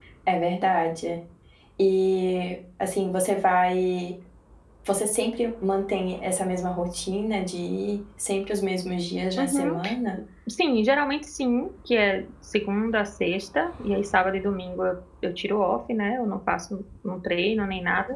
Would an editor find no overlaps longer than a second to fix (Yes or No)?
Yes